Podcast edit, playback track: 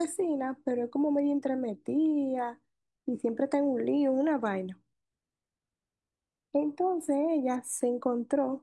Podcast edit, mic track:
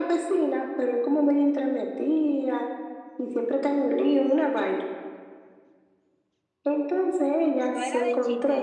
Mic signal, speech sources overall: both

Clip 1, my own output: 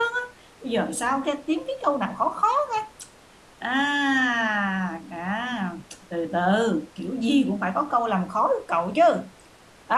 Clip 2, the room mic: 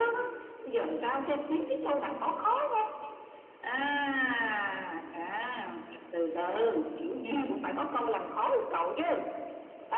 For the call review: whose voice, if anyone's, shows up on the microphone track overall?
echo only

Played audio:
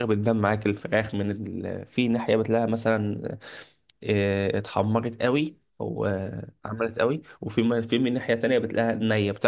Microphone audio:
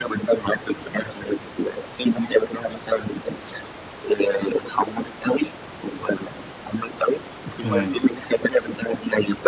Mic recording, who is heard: both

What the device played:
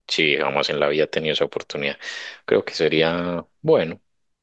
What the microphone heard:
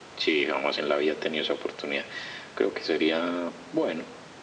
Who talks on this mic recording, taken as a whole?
echo only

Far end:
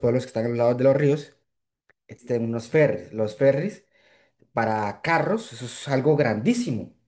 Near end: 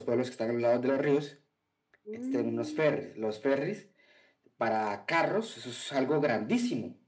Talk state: both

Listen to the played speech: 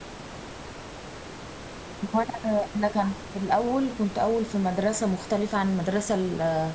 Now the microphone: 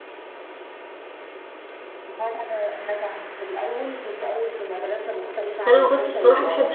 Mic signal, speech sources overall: both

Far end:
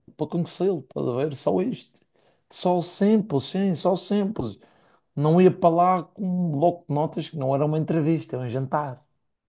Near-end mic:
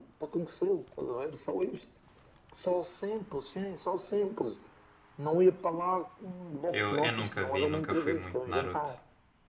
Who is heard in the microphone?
both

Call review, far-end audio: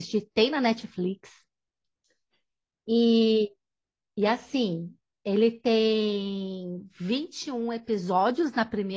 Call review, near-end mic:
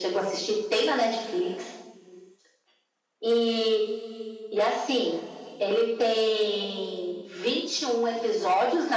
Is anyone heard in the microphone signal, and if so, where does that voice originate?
echo only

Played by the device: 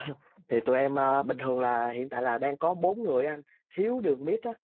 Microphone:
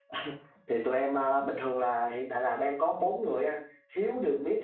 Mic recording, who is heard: echo only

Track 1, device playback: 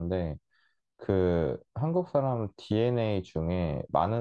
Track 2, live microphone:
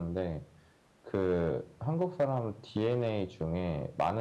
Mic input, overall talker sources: echo only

